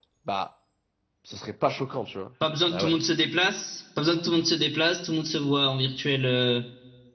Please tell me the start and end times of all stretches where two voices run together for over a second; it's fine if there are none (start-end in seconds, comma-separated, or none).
none